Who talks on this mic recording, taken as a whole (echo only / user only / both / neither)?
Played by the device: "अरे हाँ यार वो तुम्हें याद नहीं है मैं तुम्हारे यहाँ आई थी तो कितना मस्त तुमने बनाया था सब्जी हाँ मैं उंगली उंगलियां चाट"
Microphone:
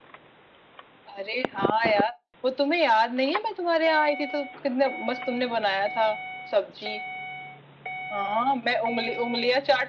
echo only